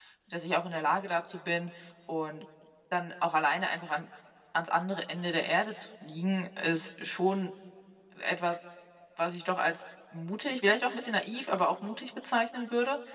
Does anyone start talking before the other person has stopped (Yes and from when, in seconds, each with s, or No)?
No